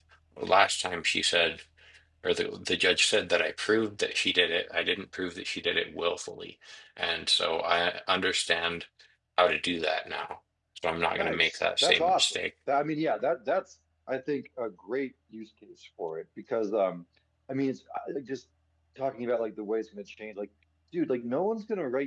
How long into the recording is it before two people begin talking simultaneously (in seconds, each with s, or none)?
11.1 s